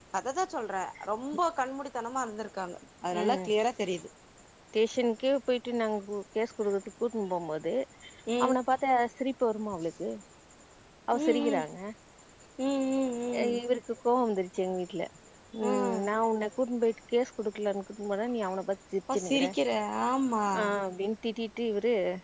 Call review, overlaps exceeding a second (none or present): none